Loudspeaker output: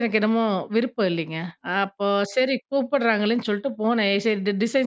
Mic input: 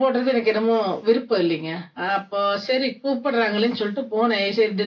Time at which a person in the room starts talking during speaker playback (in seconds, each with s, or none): none